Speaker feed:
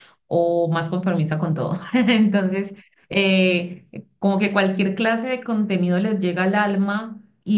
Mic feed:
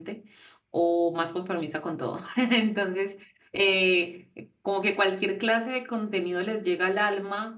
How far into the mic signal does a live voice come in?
none

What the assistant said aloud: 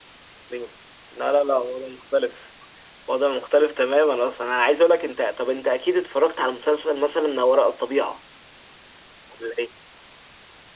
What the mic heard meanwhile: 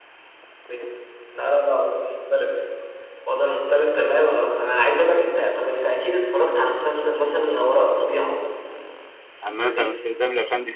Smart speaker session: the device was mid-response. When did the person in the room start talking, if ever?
9 s

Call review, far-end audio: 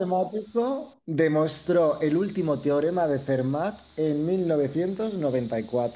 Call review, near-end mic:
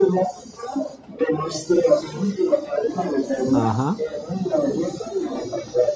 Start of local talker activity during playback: 4 s

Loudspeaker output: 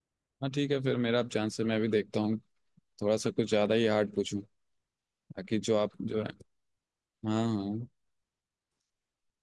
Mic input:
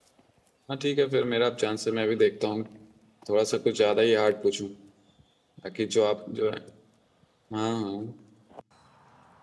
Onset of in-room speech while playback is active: none

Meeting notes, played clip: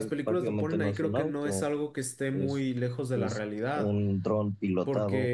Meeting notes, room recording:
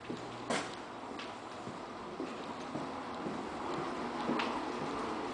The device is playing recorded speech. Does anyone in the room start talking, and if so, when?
none

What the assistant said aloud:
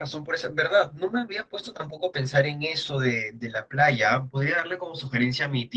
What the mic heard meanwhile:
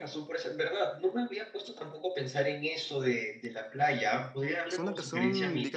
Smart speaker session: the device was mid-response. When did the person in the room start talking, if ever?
5 s

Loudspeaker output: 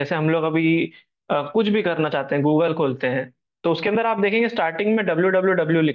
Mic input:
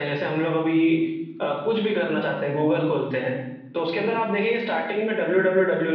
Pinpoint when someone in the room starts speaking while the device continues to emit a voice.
none

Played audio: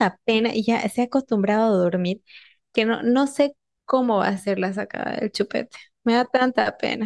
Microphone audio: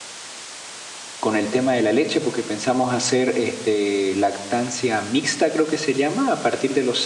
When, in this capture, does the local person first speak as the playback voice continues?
1 s

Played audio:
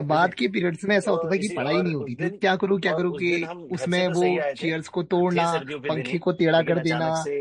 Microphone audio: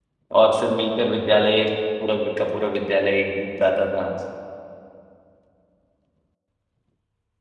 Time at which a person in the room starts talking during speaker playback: 0 s

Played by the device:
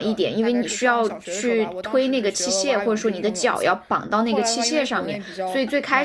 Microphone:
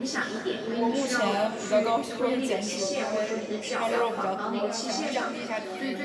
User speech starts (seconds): 1 s

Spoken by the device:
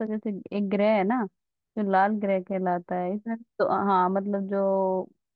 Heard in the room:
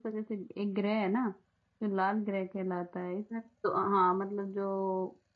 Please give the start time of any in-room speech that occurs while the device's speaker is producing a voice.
none

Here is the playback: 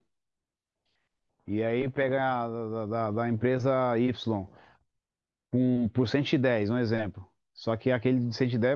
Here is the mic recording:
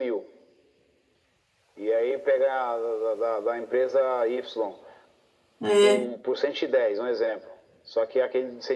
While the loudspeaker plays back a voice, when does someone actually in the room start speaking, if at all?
6 s

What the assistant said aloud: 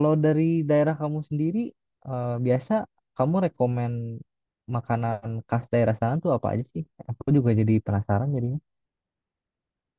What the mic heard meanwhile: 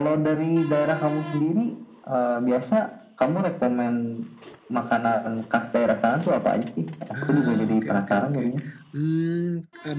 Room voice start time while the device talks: 7 s

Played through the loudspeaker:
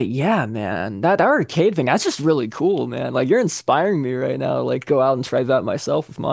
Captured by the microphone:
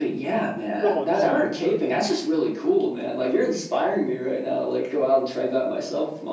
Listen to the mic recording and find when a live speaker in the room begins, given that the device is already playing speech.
1 s

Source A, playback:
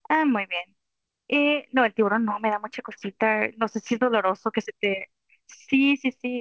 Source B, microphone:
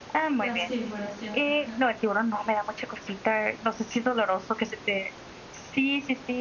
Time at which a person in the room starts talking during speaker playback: 0 s

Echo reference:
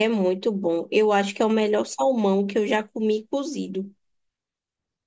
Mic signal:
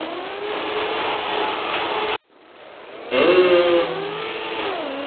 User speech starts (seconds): 3 s

